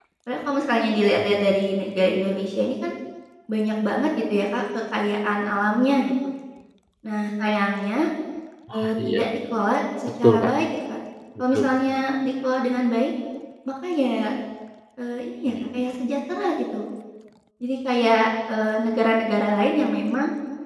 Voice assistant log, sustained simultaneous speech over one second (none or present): none